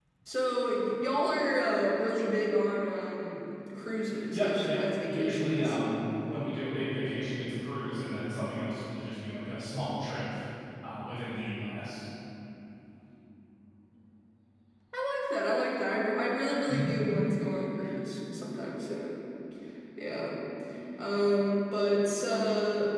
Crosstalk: present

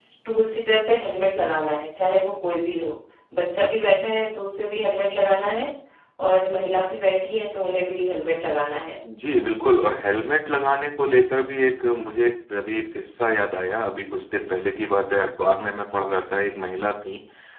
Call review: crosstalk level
none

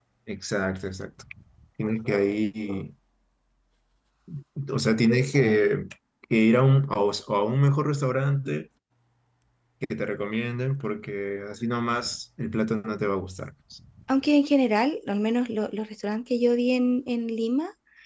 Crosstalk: none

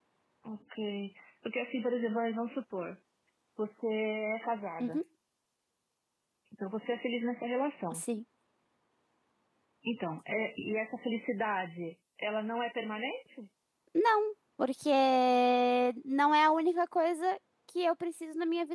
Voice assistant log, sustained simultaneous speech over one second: none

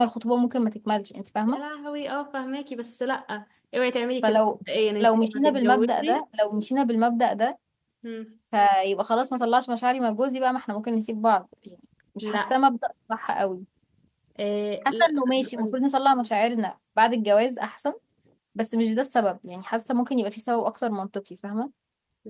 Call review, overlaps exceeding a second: present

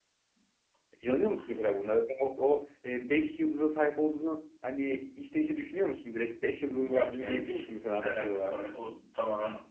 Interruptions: present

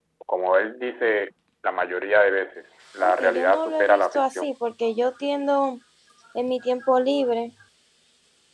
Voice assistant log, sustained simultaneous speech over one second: present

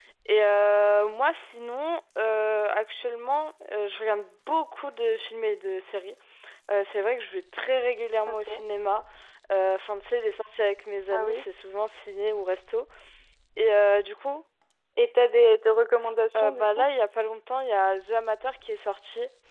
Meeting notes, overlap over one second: none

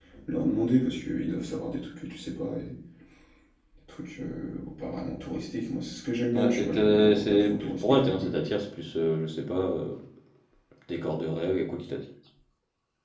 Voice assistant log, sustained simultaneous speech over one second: present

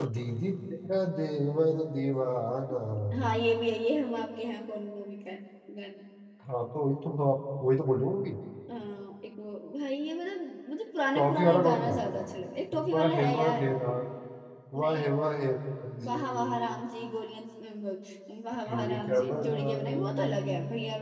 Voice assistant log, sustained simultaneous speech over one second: present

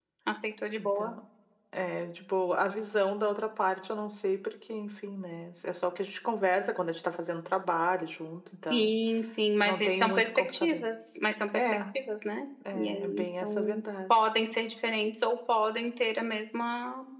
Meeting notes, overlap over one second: present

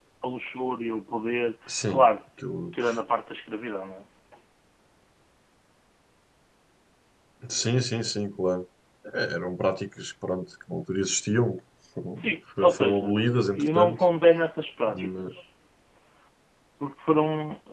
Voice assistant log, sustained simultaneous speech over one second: none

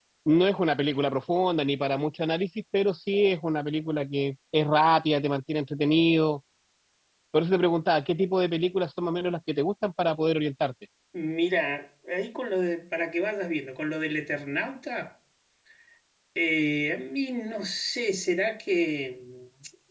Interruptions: none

